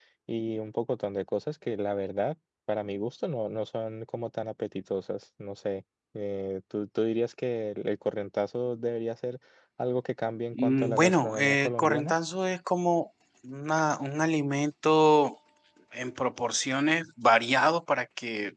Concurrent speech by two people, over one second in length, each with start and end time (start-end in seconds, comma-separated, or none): 10.5-12.1